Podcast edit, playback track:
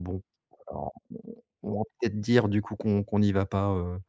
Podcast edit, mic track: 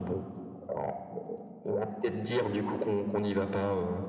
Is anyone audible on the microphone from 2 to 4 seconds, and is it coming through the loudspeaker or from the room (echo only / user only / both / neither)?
echo only